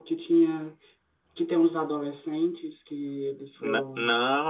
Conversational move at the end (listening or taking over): taking over